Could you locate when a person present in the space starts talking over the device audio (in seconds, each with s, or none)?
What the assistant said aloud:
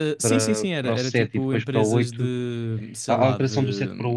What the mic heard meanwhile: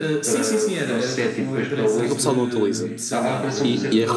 1.9 s